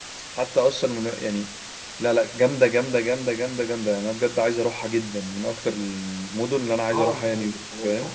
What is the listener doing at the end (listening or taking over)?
taking over